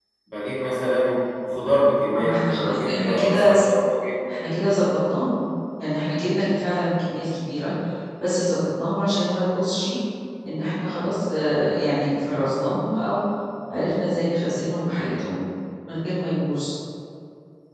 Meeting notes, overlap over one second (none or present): present